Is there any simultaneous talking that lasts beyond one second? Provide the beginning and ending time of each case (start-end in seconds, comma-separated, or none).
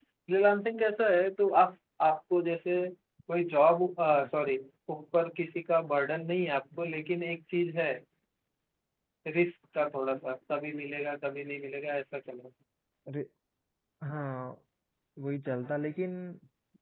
none